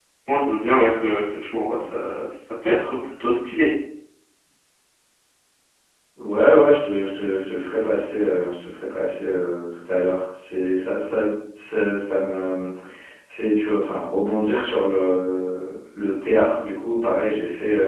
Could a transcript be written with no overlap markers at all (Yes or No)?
Yes